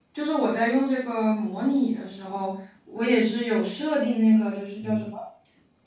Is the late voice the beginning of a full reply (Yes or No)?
No